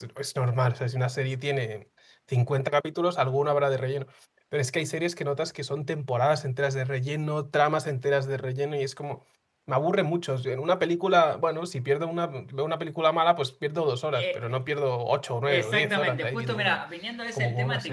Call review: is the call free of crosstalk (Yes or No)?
No